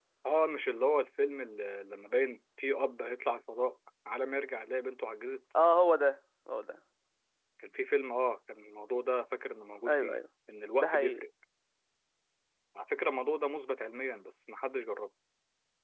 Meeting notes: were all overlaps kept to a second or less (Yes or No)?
Yes